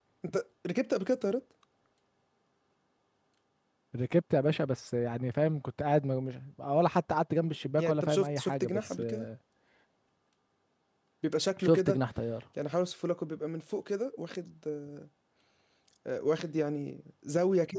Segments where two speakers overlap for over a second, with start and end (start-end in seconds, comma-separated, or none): 7.8-9.2